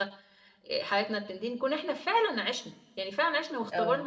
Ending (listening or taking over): listening